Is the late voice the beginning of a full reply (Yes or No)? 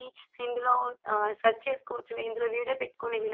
Yes